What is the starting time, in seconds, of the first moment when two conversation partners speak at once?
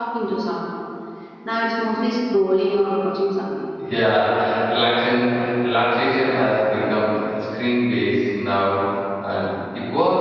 none

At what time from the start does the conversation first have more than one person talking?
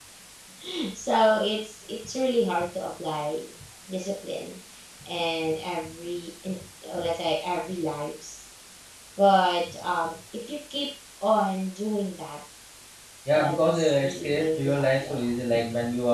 13.4 s

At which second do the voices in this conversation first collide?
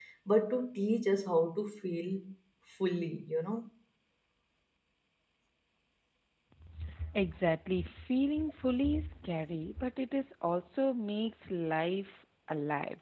none

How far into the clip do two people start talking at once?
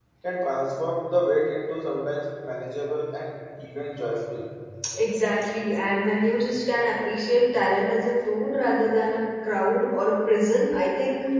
none

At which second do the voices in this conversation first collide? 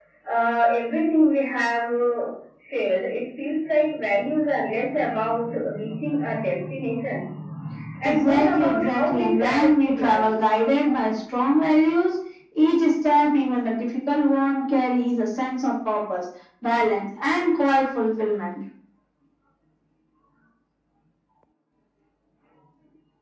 8.0 s

